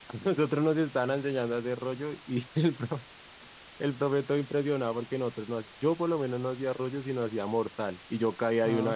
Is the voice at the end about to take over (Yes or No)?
No